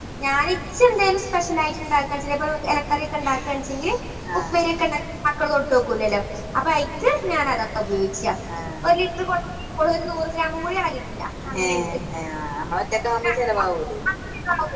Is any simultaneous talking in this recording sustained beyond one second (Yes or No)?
No